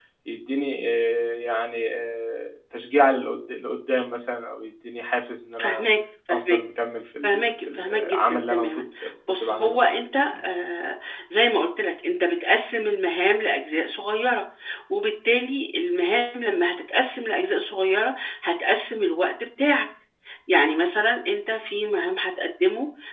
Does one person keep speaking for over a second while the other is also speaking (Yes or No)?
Yes